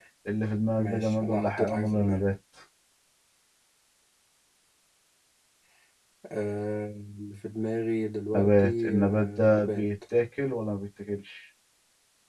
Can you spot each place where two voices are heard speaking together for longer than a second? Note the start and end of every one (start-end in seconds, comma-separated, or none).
0.8-2.2, 8.3-9.8